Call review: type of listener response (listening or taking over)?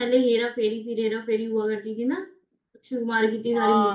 taking over